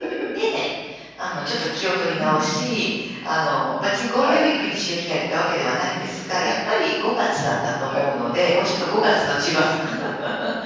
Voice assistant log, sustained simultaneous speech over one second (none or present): none